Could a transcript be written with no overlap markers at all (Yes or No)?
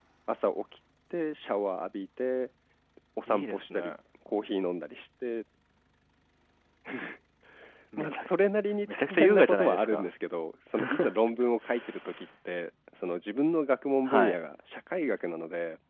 No